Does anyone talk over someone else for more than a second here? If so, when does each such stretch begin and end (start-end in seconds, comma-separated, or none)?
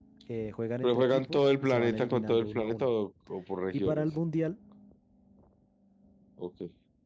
0.8-2.9